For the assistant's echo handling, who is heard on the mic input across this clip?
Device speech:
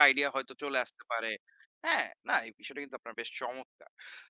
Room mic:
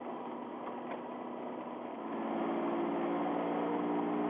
neither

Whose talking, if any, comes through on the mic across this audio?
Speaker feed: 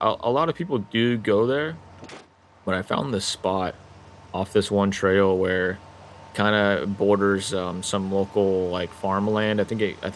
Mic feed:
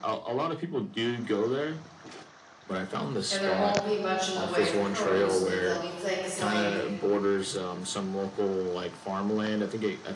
both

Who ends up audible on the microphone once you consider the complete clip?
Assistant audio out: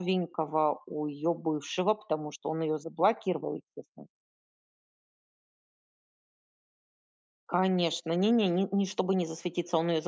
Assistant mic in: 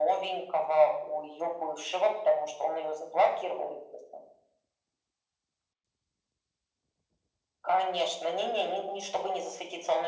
echo only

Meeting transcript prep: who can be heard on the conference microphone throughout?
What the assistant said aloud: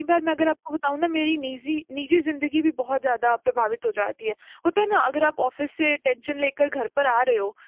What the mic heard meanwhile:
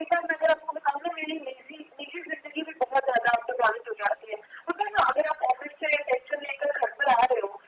echo only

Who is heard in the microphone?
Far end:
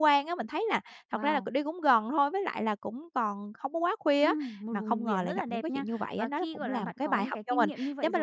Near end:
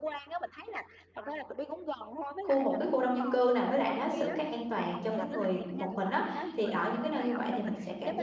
both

